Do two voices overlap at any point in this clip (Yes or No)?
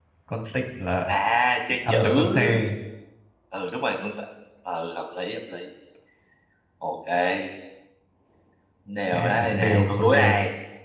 Yes